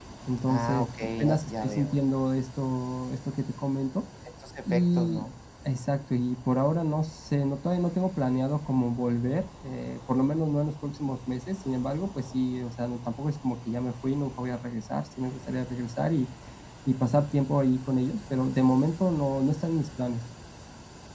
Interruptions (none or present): present